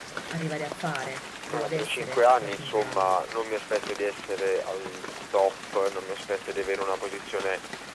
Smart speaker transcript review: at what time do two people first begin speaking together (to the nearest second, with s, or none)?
2 s